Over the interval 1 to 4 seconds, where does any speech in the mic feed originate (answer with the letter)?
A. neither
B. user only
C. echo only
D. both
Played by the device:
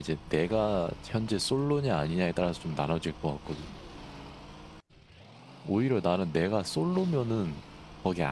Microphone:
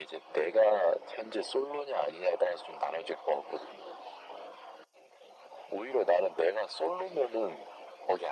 C